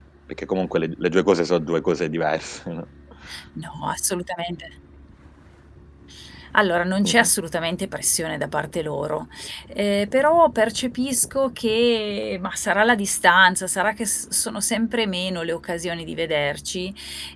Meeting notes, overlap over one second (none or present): none